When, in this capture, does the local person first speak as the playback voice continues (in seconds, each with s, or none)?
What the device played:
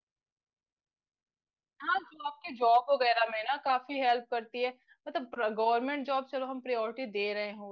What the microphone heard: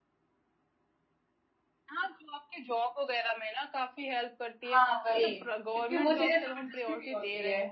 4.7 s